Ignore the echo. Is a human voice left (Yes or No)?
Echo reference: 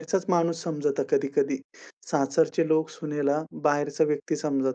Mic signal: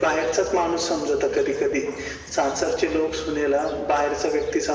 No